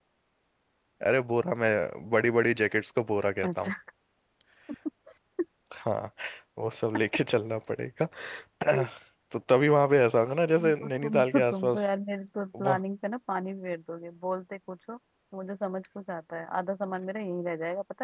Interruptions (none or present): present